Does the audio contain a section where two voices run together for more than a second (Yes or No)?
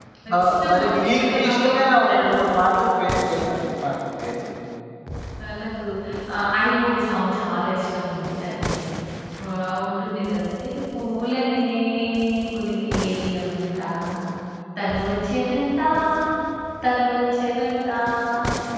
Yes